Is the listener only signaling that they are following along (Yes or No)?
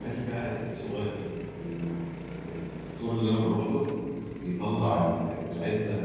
Yes